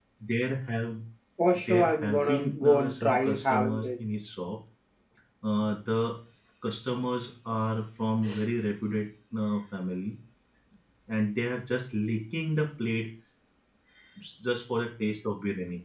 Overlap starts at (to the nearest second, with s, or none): 2 s